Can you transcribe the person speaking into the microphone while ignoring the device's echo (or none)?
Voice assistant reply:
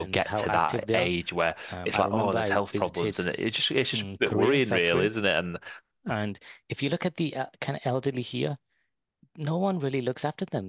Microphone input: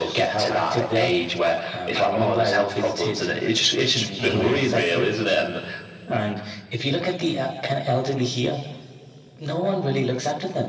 Mhm.